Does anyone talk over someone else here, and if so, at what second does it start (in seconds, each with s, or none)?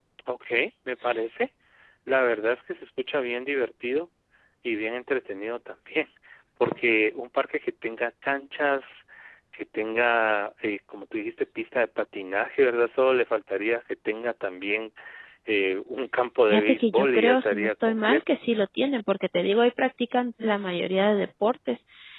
16.5 s